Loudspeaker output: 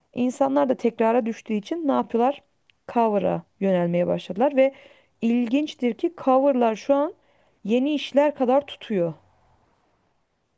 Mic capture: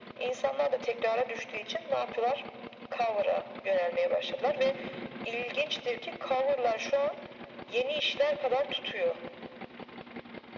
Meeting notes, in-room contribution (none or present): none